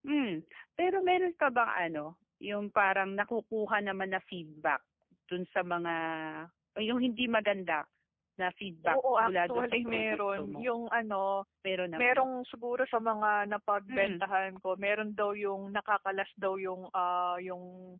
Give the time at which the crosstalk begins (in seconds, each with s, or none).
8.8 s